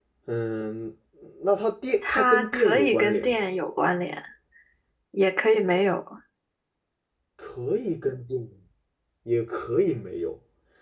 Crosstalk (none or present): present